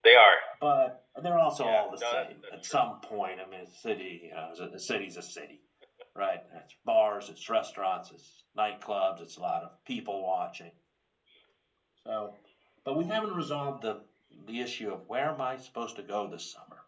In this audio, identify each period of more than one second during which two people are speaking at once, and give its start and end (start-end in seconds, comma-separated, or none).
1.6-2.8